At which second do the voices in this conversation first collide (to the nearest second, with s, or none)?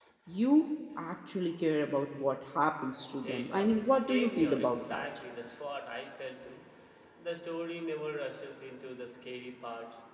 3 s